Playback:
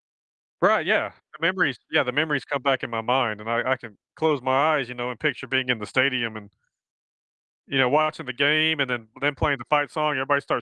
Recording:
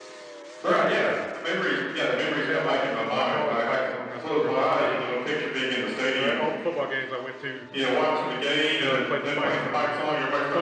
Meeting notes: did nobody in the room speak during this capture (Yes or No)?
No